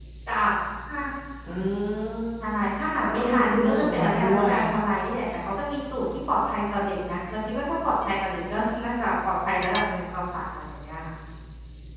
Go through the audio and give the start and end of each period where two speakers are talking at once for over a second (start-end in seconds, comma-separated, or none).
3.0-4.5